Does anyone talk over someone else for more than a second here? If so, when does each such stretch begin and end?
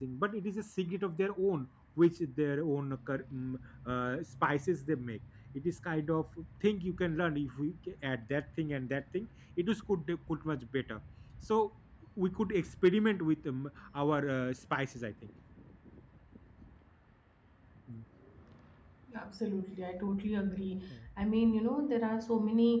none

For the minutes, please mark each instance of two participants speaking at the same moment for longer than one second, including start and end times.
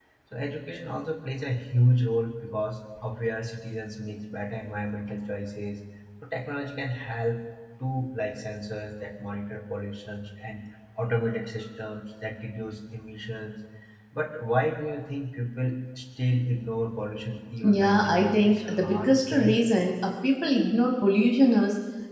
17.6-19.6

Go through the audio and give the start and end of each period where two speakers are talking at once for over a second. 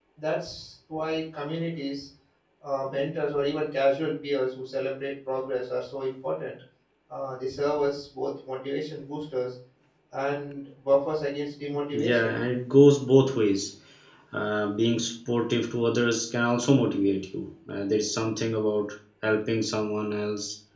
none

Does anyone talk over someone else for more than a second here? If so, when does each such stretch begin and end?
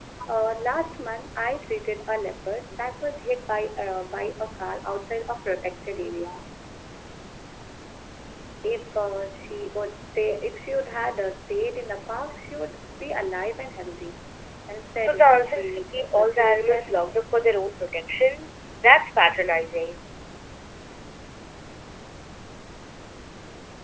15.0-17.2

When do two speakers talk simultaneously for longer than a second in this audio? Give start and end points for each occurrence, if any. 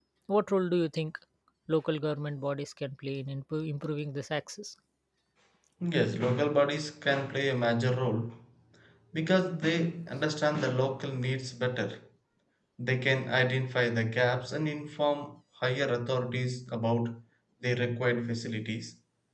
none

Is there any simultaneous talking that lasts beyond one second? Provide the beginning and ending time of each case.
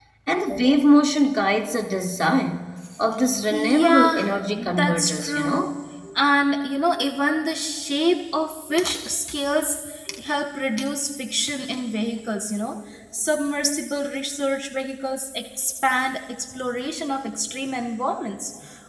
3.5-5.7

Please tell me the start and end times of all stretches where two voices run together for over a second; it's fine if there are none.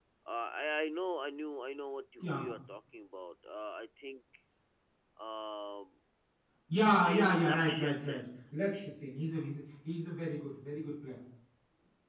6.8-8.2

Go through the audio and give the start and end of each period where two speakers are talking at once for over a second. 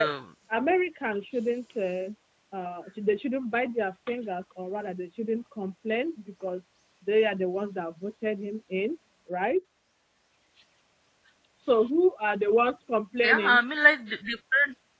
none

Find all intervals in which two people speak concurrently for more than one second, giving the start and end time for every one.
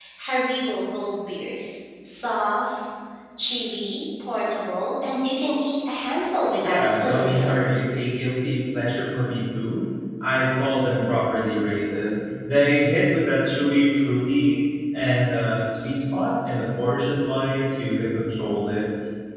6.6-7.9

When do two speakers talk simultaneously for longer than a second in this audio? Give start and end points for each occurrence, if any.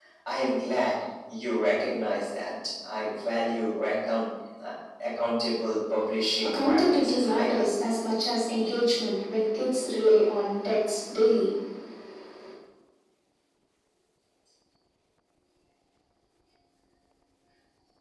6.4-7.7

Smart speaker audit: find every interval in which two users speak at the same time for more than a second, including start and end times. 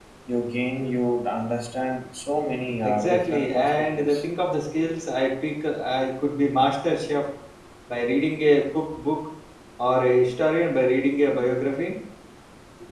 2.8-4.2

